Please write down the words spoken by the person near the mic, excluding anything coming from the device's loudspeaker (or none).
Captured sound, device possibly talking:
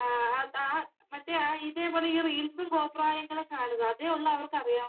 none